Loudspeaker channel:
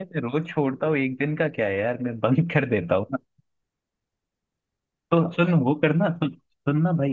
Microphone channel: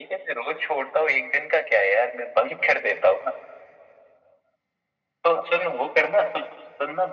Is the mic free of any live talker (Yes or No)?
Yes